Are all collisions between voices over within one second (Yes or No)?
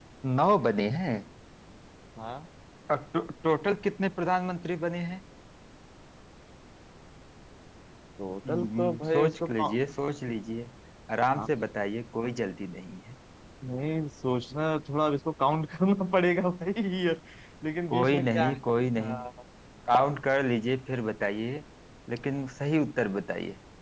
No